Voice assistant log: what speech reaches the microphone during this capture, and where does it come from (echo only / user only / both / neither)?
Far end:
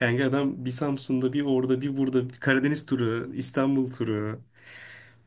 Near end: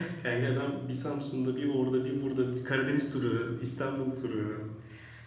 echo only